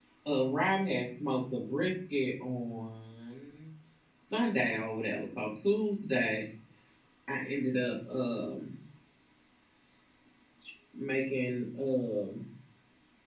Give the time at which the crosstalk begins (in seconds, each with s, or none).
none